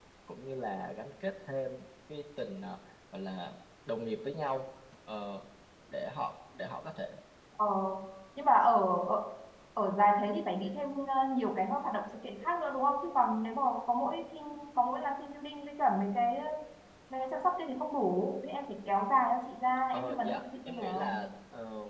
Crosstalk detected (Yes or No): Yes